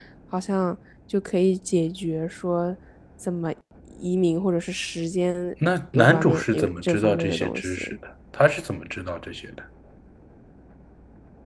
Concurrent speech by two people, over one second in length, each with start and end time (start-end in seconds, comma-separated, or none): 5.9-8.0